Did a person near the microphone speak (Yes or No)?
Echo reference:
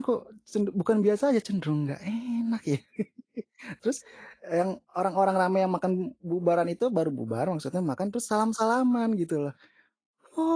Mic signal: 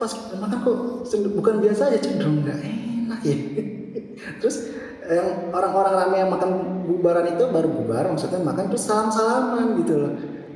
No